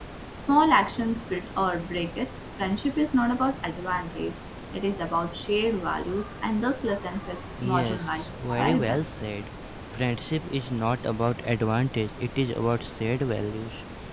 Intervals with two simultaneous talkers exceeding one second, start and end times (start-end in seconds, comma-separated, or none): 7.7-9.1